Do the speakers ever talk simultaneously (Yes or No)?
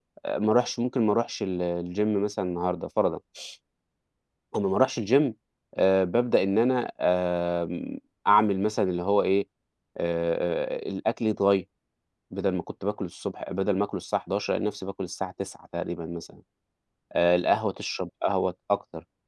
No